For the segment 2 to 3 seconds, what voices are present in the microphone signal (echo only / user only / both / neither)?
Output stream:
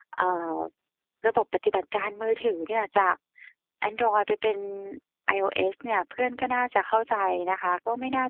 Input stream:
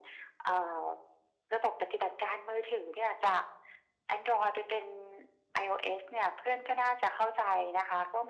echo only